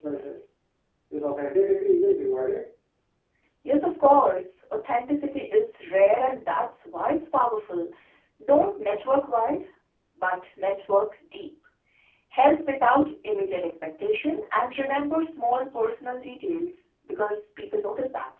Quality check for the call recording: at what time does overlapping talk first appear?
none

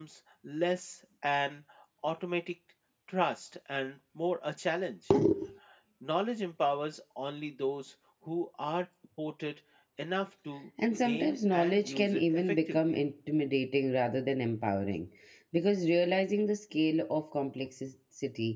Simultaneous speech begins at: 10.8 s

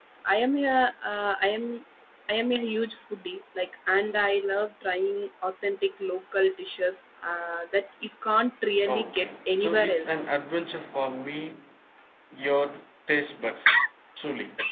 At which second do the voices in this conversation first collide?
8.9 s

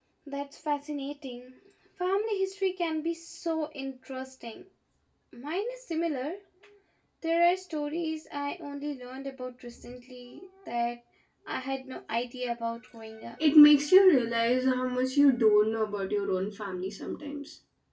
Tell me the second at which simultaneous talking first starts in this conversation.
none

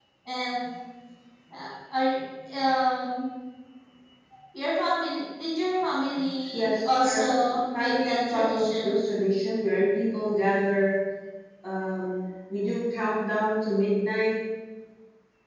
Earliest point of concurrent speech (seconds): 6.5 s

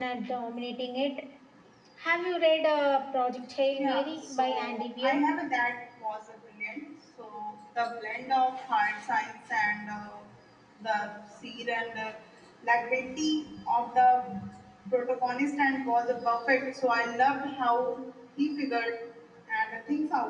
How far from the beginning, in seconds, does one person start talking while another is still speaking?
3.8 s

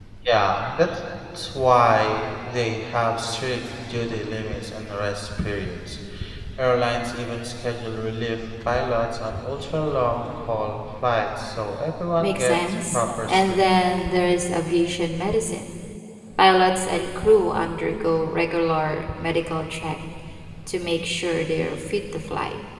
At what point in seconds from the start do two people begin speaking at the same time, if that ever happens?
12.2 s

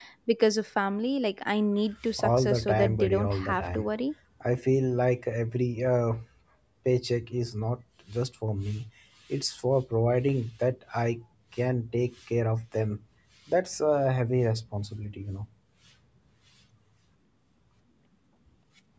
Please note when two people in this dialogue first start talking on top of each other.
2.1 s

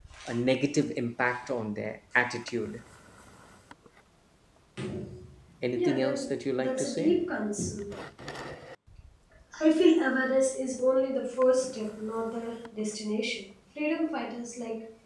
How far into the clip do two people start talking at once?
5.7 s

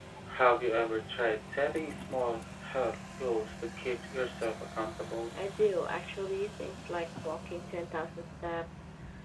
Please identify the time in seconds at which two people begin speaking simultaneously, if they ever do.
none

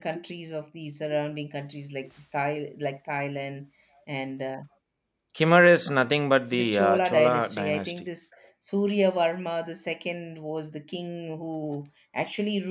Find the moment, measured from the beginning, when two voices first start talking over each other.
6.5 s

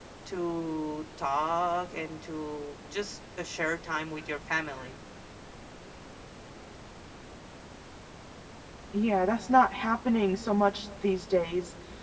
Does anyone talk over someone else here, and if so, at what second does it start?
none

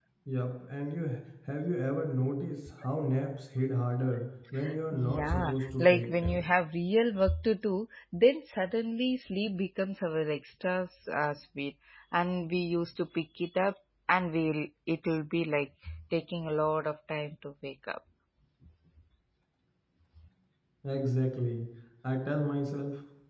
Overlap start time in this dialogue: 4.9 s

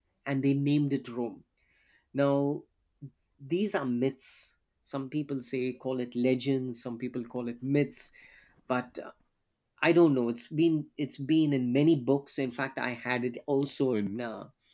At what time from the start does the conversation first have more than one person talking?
none

